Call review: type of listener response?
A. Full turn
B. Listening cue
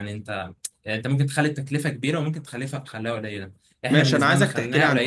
A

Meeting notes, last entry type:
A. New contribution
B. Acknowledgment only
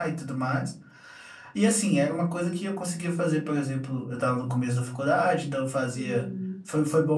B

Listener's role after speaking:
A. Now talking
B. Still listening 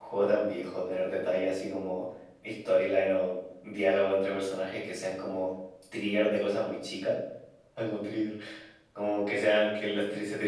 B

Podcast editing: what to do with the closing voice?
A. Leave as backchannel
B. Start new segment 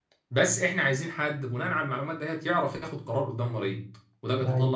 A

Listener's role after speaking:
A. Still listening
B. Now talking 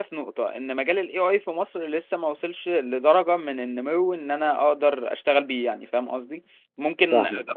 A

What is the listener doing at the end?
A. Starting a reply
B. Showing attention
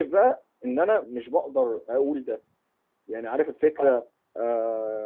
B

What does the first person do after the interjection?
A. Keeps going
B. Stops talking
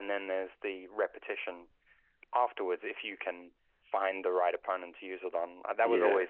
A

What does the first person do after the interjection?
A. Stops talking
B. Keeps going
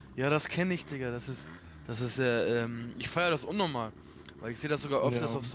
B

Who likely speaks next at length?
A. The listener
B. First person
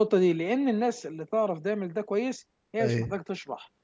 B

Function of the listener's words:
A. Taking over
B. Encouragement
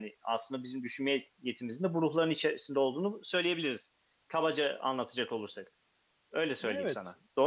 A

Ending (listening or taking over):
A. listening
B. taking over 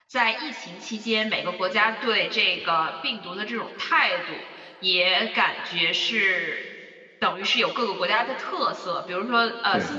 A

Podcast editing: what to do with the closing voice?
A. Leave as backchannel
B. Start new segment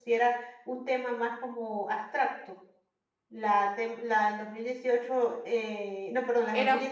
A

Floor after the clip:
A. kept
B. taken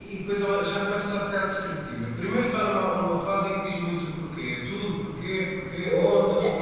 B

